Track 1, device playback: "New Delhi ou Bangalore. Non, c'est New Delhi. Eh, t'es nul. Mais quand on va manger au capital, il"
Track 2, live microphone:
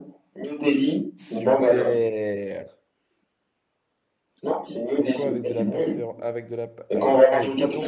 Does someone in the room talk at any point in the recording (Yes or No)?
Yes